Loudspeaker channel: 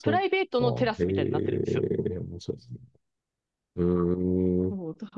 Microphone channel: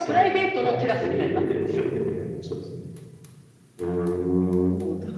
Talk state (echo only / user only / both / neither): echo only